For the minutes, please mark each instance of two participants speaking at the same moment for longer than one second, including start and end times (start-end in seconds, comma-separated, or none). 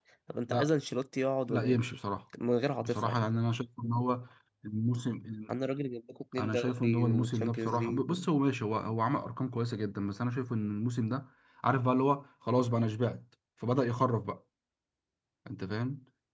6.4-8.2